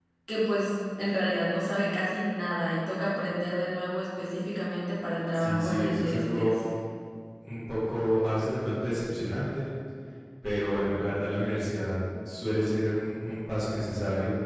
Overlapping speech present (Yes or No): Yes